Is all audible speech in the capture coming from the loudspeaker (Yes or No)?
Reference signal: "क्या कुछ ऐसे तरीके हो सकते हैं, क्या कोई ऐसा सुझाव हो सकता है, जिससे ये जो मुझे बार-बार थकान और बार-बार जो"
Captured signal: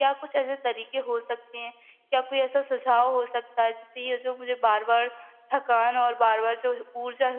Yes